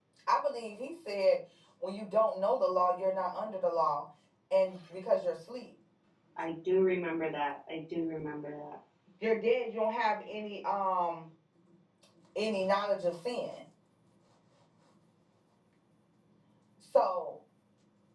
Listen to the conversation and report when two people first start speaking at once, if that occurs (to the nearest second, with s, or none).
none